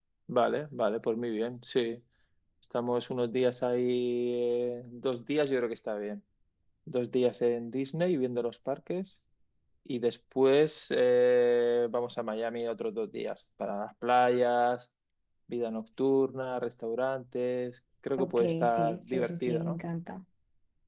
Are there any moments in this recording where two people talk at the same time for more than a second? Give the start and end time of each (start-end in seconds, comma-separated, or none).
18.2-19.8